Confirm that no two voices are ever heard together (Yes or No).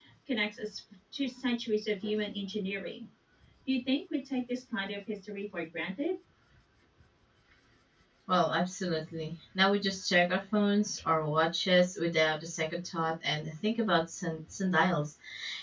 Yes